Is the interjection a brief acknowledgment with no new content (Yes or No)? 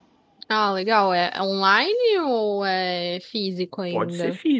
No